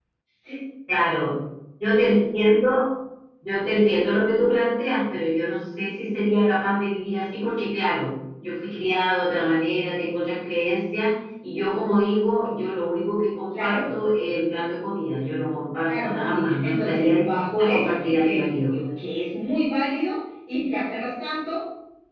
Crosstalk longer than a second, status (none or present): present